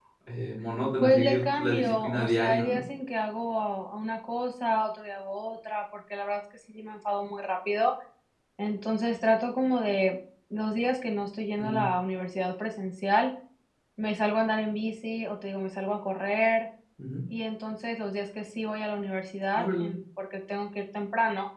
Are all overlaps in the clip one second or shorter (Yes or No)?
No